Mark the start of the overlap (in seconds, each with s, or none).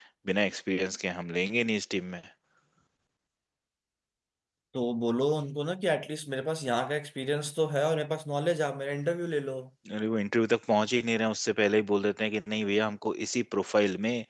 none